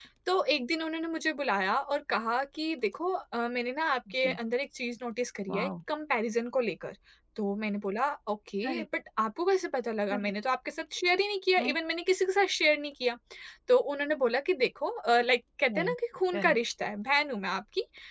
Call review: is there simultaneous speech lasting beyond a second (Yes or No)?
No